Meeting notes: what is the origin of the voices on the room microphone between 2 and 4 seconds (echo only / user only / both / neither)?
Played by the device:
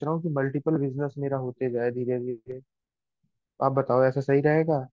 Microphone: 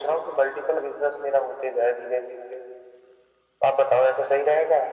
echo only